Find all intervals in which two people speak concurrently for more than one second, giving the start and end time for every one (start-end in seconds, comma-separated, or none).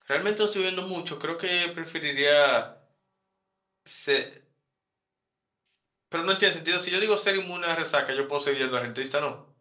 none